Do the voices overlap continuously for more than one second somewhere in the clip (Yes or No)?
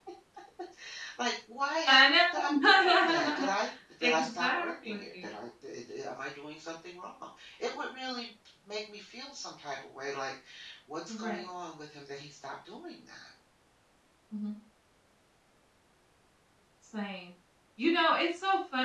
Yes